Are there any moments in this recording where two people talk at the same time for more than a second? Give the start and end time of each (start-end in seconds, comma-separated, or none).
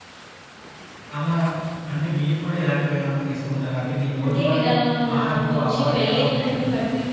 5.2-6.6